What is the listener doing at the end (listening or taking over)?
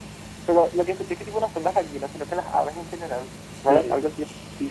taking over